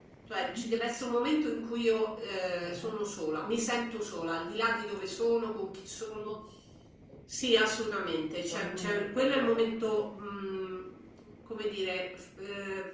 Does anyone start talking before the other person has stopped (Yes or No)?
Yes